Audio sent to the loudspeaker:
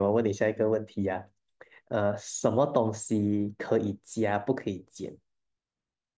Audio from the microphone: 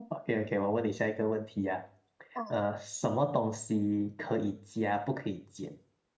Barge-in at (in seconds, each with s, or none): 2.3 s